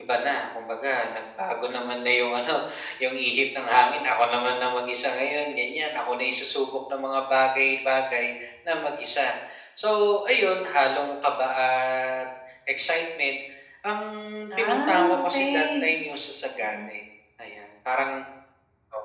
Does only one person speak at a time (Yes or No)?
No